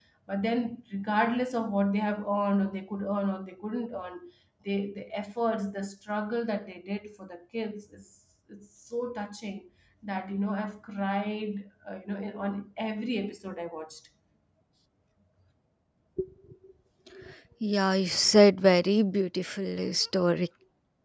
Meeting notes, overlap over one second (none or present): none